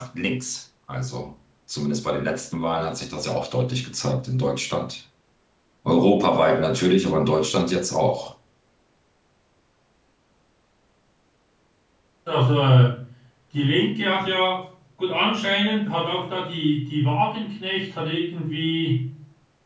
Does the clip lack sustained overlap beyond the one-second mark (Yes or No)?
Yes